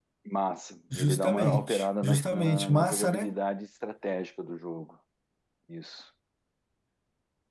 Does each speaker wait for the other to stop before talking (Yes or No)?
No